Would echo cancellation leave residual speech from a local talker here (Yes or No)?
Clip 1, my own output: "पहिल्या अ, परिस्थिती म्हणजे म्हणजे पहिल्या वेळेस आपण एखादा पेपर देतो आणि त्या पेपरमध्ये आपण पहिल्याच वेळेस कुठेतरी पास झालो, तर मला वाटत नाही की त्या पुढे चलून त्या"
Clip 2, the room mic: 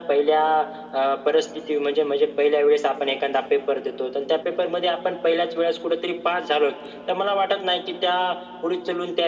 No